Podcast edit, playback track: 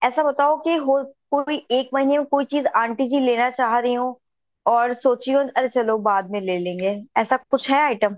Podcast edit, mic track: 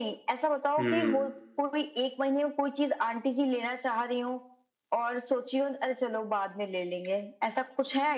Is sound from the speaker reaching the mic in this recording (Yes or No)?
Yes